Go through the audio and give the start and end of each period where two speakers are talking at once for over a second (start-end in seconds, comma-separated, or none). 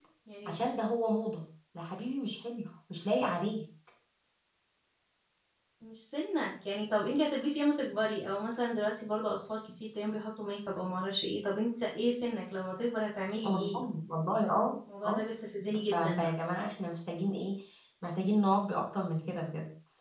none